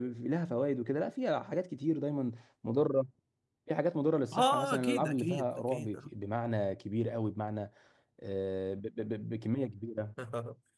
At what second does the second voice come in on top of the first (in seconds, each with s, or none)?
4.3 s